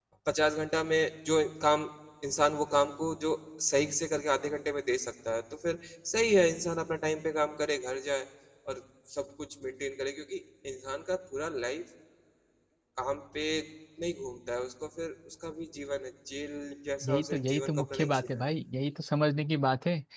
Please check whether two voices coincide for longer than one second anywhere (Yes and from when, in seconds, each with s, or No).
Yes, from 17.0 s